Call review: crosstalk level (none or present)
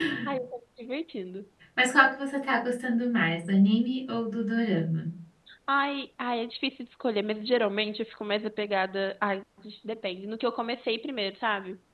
none